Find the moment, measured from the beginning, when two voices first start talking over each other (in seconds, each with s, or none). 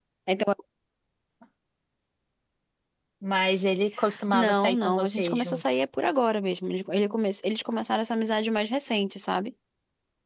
4.3 s